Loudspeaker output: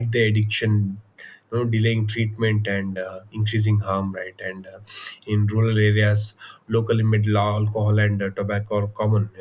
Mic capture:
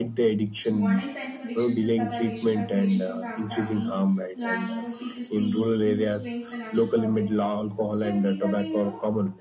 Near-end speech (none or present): present